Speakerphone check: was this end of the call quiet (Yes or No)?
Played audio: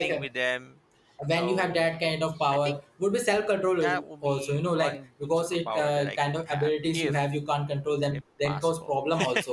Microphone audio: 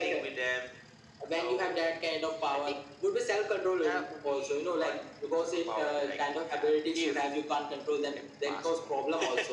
Yes